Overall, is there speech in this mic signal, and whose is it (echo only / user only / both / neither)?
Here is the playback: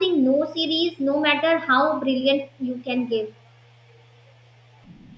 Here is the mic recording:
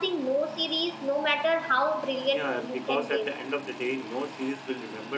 both